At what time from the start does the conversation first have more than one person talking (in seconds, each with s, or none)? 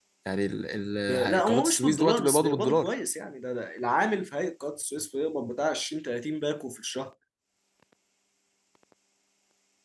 1.1 s